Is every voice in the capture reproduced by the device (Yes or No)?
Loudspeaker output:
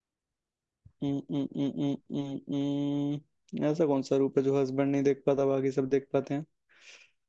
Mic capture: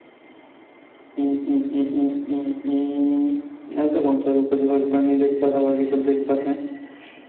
Yes